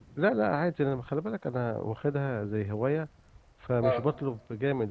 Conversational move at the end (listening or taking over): listening